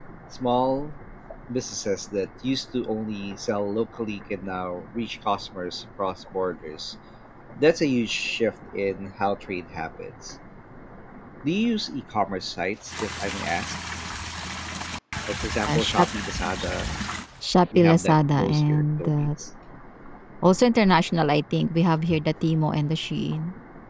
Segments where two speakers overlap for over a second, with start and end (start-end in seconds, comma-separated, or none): 17.8-19.3